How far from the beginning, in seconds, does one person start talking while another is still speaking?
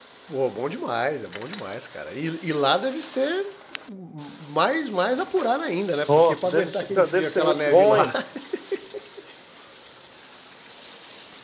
6.1 s

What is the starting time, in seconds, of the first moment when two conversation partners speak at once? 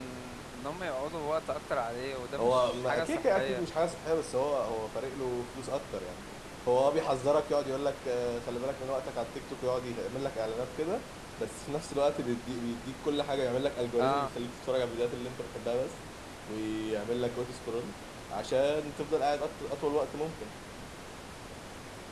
2.4 s

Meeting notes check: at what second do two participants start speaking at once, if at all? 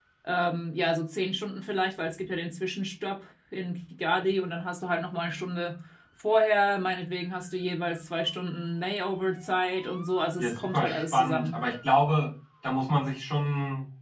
10.4 s

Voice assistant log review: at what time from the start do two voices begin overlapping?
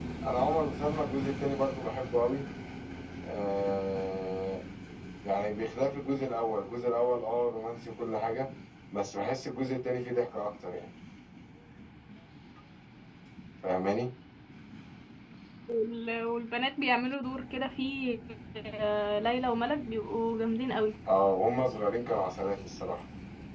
none

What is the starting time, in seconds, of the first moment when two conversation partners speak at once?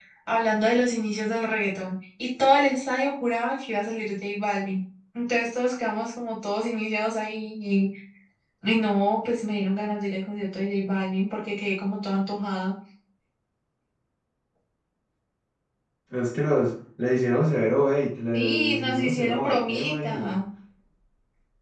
18.3 s

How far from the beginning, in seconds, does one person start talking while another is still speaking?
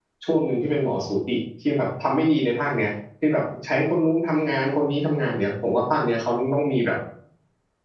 none

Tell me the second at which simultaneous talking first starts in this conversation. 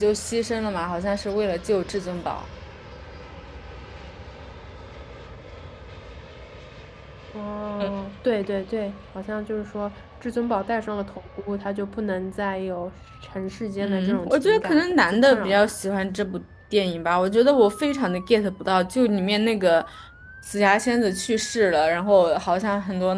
13.8 s

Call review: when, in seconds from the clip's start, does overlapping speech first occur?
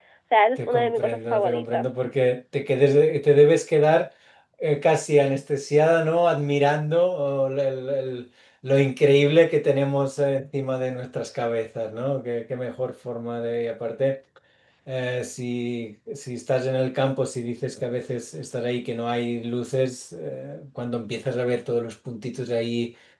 0.6 s

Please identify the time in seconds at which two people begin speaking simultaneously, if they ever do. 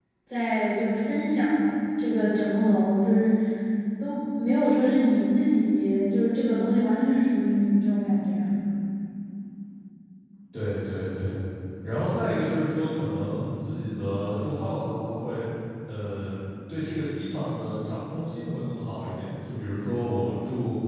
none

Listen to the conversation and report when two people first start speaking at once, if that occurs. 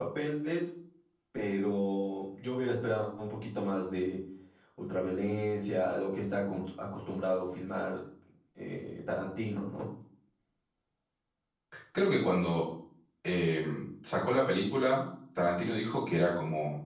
none

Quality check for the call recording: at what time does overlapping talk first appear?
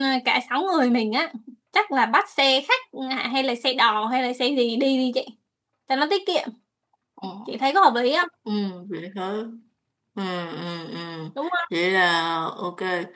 none

